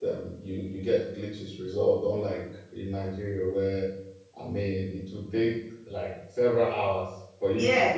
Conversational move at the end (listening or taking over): taking over